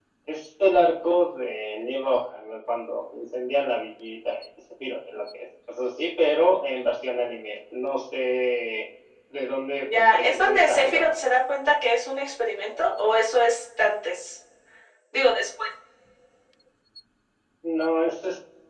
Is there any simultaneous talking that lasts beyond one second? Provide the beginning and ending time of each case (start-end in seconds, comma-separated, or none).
9.8-11.1